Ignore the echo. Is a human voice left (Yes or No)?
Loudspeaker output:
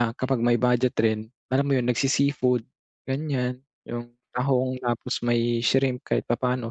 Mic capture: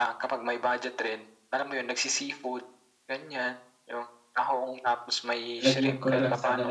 Yes